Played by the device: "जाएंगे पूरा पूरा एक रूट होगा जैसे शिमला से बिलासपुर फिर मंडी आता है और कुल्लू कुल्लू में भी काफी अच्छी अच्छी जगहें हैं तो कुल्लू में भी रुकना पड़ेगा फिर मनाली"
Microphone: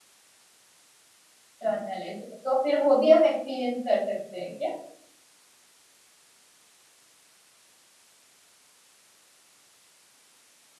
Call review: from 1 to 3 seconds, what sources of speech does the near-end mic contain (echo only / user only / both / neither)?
user only